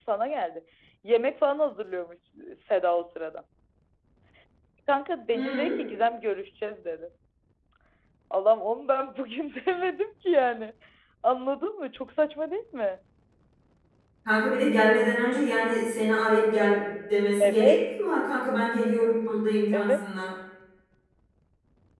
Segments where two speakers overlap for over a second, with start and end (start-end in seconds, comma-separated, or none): none